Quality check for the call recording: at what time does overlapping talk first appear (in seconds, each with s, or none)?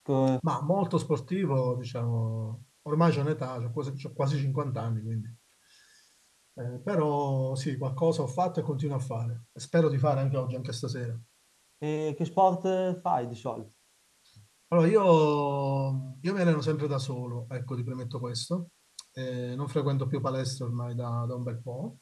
none